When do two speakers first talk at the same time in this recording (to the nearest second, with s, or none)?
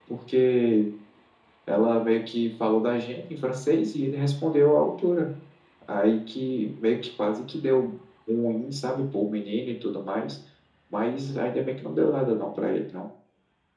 none